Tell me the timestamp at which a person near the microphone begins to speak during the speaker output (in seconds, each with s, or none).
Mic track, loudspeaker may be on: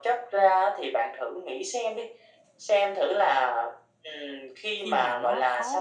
4.8 s